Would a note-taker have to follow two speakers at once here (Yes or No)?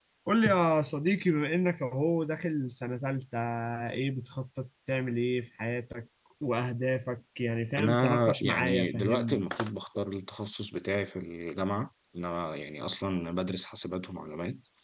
Yes